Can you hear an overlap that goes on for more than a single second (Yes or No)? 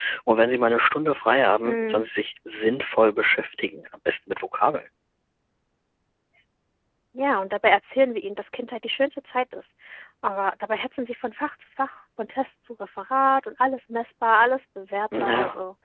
No